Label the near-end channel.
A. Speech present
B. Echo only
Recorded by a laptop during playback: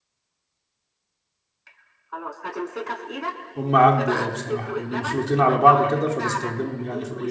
A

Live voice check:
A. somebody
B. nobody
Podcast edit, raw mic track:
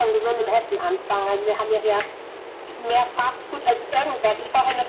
B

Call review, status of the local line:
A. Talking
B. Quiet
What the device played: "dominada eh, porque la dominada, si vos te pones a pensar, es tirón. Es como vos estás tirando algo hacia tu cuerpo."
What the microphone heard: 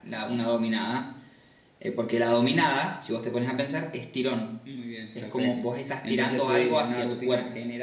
A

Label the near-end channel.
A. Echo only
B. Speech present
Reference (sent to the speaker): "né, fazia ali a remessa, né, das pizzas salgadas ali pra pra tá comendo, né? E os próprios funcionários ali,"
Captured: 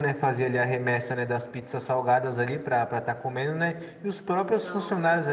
B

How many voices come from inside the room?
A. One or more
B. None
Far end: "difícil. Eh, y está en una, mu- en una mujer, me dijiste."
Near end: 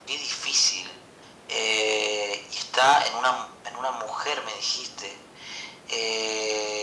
B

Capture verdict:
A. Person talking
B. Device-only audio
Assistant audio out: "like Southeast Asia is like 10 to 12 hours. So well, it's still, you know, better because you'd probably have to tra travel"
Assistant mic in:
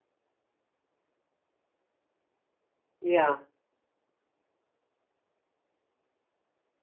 A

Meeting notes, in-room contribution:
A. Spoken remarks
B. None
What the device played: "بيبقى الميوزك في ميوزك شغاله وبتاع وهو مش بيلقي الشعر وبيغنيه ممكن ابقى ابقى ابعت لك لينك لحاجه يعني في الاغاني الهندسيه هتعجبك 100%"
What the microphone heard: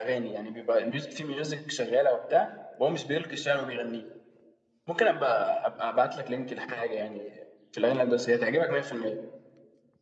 B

